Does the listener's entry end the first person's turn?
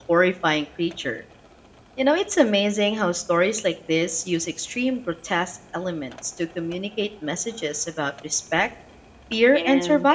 Yes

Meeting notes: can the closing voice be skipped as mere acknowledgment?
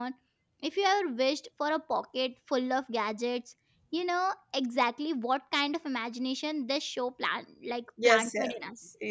No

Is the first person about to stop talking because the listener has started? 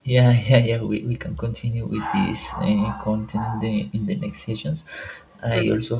No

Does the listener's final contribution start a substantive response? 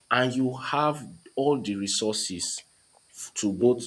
No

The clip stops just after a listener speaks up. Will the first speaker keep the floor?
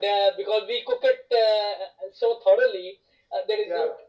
Yes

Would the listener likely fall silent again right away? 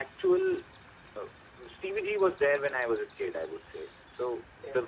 Yes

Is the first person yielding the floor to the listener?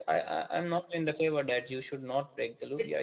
No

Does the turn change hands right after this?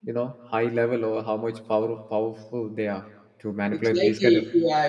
Yes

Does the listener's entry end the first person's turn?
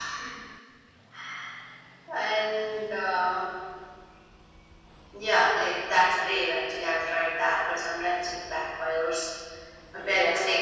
No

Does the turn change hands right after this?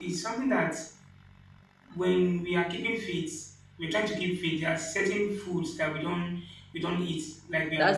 Yes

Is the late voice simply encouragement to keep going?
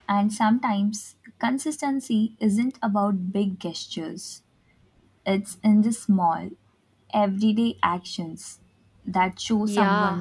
No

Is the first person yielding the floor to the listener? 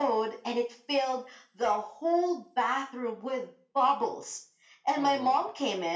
No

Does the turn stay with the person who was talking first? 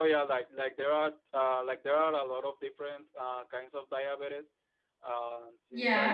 No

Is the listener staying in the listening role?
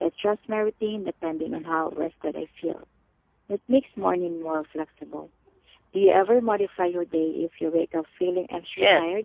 No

